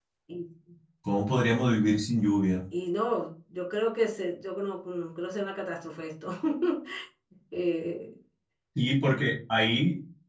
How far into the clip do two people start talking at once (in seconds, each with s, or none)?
none